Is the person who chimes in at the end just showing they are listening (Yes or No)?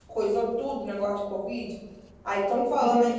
Yes